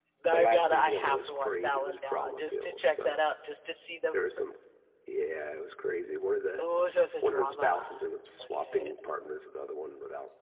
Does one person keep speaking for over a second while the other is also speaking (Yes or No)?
Yes